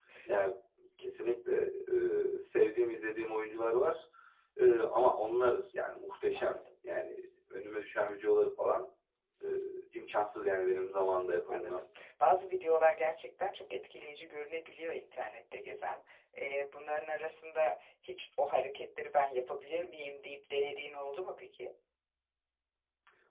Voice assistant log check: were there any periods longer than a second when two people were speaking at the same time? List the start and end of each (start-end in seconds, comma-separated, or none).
none